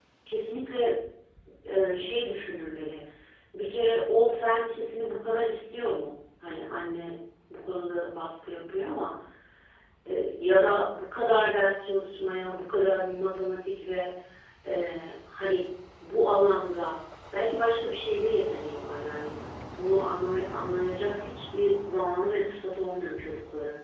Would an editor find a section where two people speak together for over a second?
No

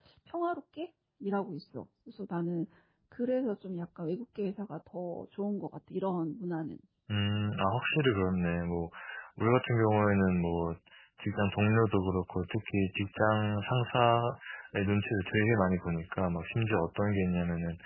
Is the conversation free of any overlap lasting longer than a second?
Yes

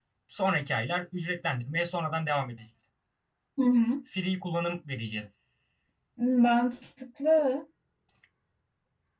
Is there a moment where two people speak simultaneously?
No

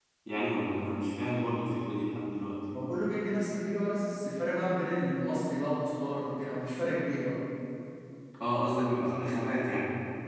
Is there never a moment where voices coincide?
Yes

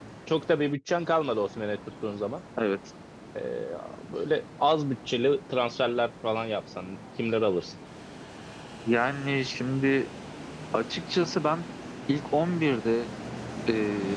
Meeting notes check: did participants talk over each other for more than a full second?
No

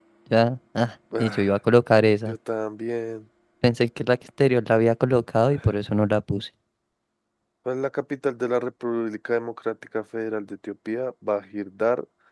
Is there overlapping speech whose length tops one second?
No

